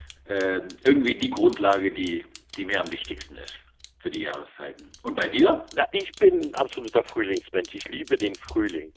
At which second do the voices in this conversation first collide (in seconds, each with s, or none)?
none